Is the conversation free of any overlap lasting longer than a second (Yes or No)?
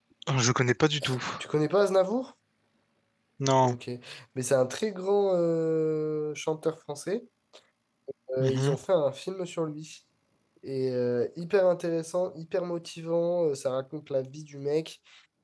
Yes